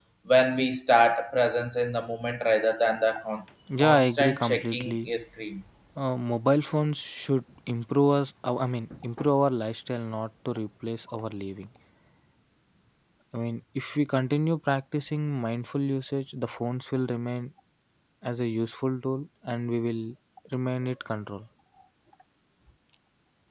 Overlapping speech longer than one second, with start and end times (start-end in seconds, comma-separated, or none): 3.8-5.1